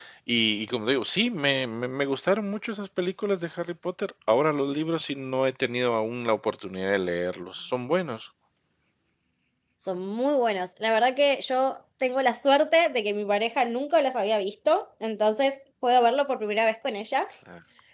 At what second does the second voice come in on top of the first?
none

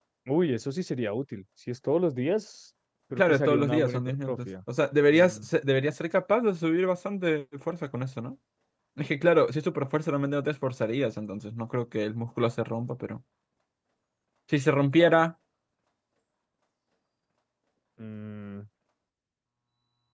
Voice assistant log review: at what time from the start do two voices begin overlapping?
3.1 s

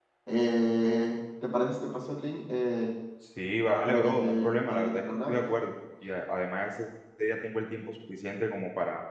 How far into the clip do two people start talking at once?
3.8 s

